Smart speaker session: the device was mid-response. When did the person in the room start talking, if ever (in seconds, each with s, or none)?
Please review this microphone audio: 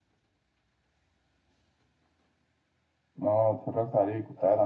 3.1 s